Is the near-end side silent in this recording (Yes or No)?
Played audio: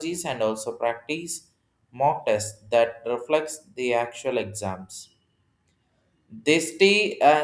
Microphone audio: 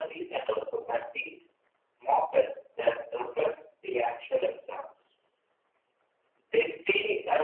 Yes